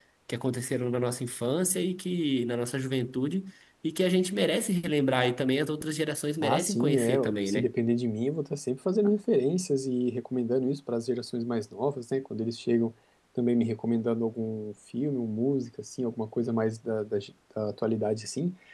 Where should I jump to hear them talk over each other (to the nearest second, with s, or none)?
6 s